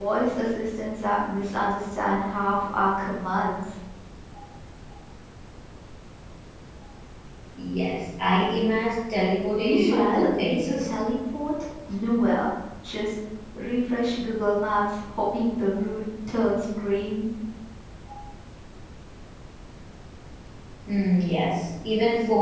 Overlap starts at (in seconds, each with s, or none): 9.6 s